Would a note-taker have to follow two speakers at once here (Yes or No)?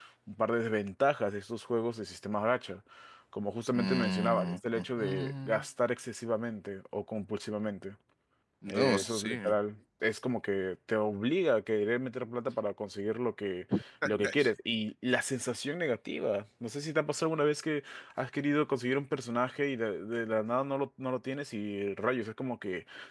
Yes